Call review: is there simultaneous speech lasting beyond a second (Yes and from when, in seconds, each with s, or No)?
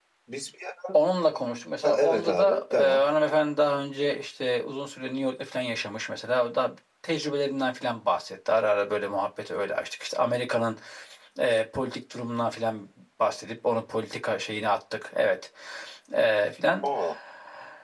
Yes, from 1.8 s